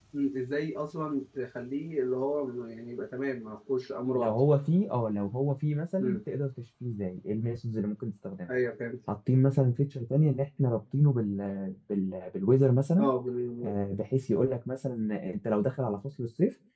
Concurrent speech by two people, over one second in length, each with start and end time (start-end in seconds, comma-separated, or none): none